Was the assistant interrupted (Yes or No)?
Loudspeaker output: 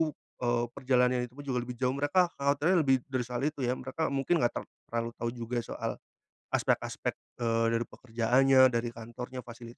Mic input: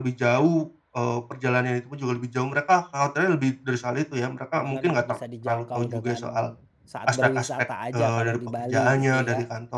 Yes